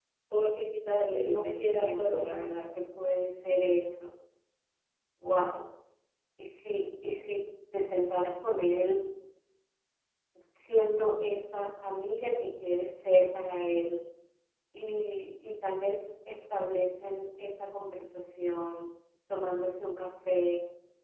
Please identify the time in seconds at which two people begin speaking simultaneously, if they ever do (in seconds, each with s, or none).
1.0 s